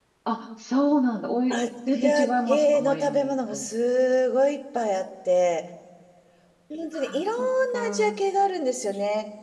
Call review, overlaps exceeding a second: present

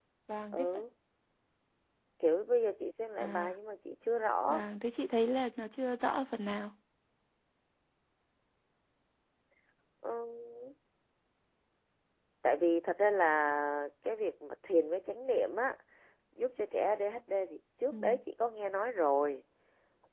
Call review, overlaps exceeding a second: none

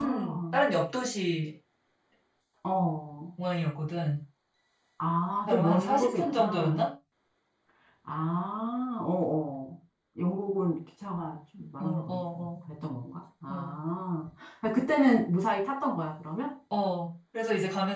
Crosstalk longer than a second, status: present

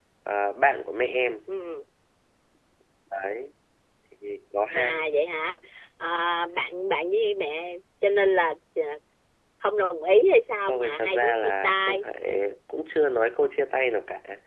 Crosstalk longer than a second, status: present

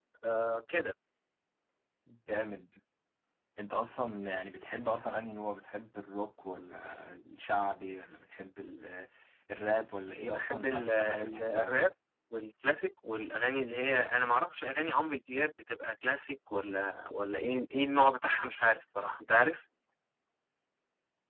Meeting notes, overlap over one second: present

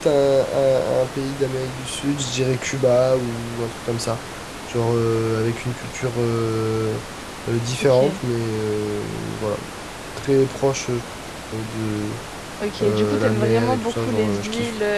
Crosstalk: present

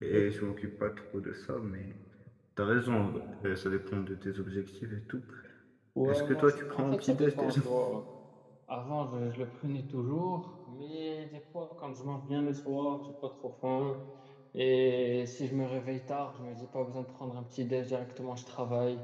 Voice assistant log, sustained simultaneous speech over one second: present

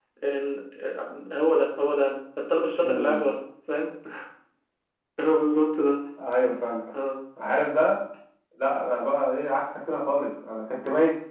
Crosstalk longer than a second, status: none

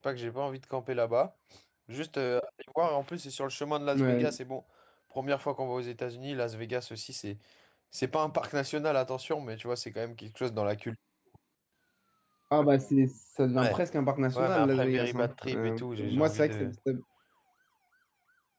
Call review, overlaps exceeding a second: present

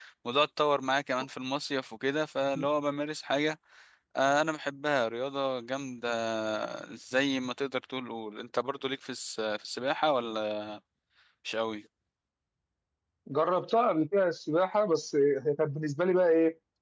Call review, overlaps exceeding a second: none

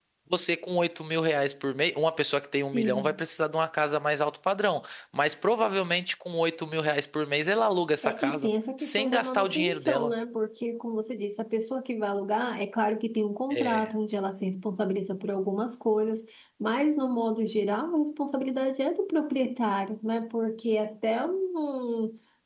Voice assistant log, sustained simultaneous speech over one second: present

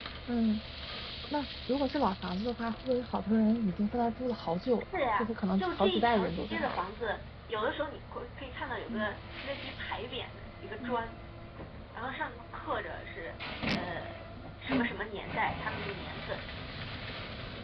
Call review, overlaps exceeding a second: present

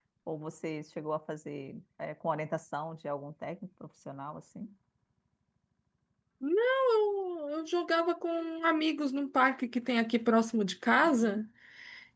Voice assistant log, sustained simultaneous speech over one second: none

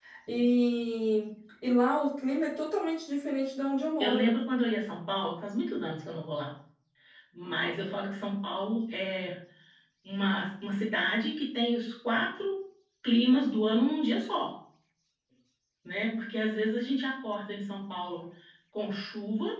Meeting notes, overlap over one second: none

